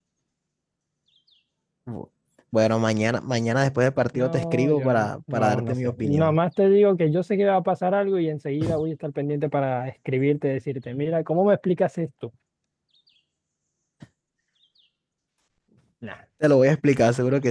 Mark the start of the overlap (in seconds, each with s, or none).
4.1 s